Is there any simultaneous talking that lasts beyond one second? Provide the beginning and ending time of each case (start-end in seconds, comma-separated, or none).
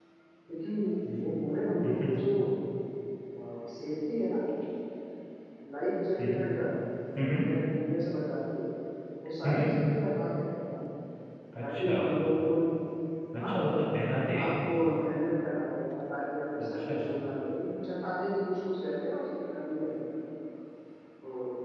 none